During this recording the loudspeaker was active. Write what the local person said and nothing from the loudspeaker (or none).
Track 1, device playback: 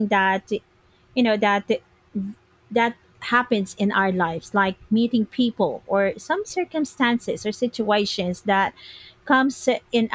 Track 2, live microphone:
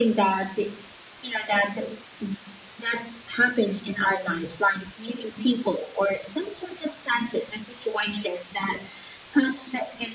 none